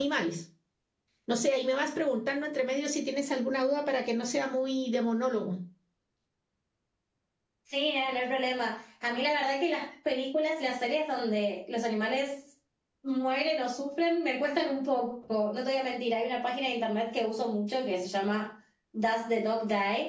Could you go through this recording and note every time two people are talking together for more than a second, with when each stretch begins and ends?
none

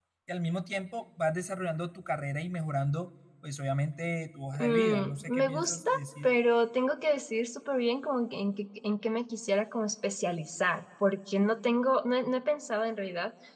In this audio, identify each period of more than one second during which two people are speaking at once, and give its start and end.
4.6-6.4

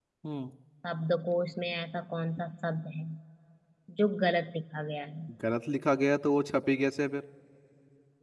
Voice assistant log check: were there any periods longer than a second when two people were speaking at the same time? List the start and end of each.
none

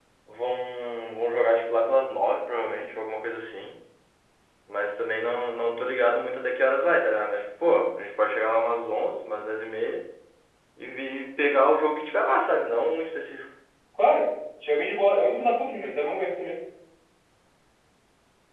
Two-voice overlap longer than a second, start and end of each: none

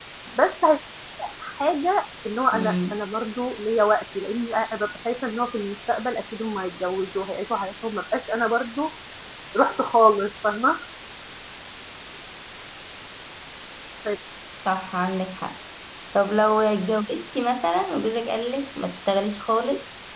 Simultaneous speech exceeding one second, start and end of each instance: none

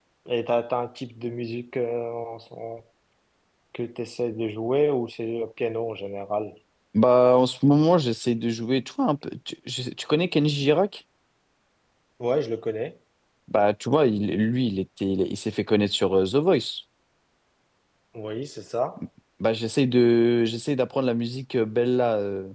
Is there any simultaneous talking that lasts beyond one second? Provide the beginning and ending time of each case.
none

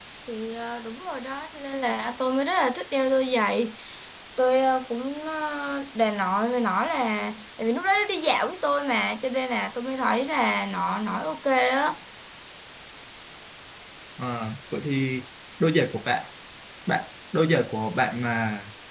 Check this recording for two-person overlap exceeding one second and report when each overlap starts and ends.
none

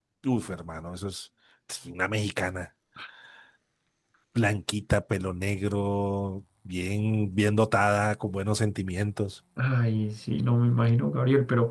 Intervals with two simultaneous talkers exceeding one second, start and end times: none

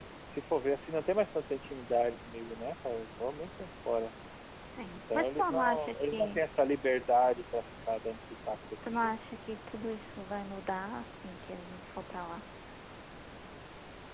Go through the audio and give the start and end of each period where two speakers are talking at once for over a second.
4.9-6.4

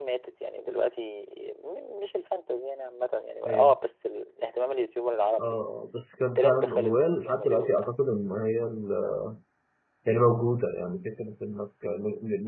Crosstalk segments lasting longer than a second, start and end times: 6.3-7.9

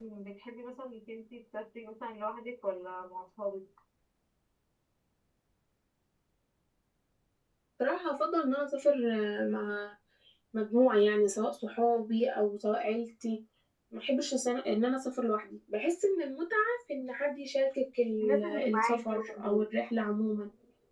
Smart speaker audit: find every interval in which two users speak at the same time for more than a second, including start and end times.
18.2-19.6

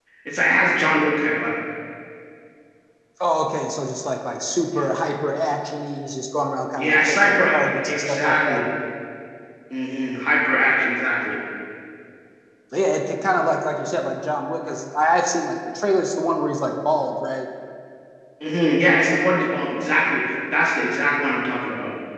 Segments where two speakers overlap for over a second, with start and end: 6.8-8.6

